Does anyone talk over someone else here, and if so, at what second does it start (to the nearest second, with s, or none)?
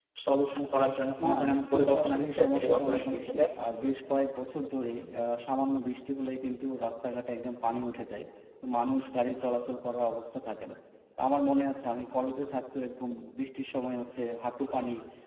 1 s